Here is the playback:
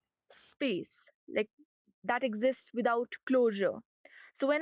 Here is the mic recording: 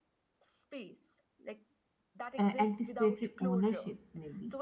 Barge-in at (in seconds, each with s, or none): 2.4 s